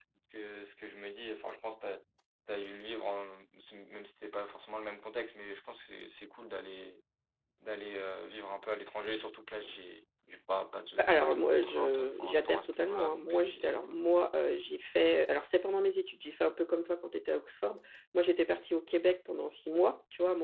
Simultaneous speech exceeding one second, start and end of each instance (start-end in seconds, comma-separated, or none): 11.0-14.0